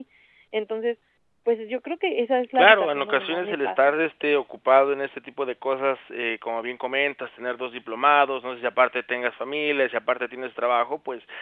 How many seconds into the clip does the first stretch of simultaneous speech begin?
2.5 s

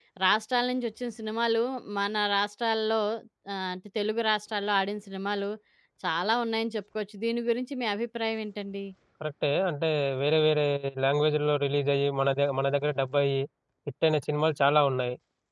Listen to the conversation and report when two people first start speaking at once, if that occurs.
none

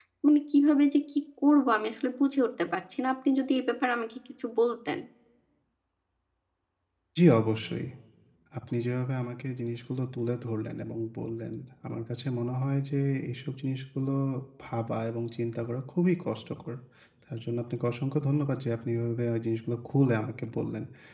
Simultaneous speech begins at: none

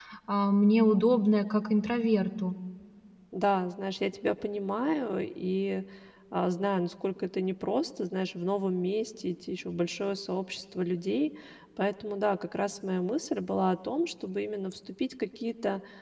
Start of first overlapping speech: none

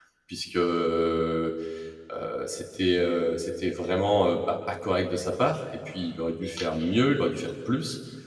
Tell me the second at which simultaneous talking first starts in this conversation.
none

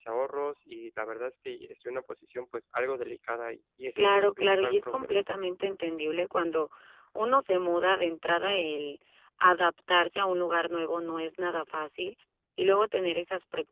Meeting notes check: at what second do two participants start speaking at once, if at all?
4.0 s

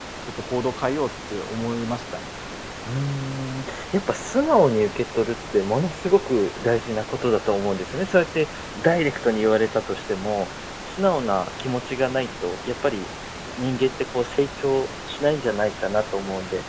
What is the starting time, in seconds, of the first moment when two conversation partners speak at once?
none

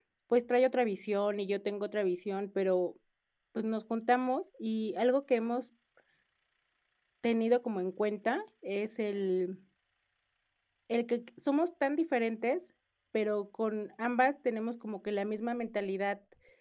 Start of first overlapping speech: none

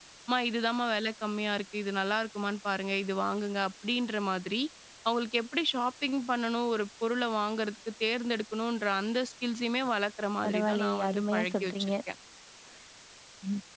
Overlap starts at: 10.4 s

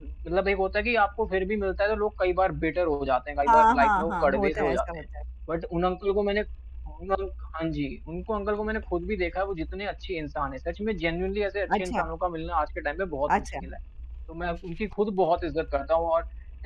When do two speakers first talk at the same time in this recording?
3.5 s

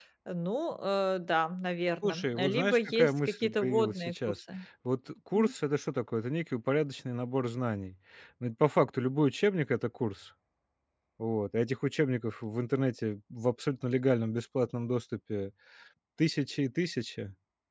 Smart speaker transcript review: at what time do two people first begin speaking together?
2.0 s

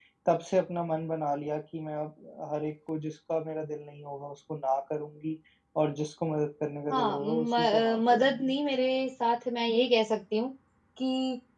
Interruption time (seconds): 6.9 s

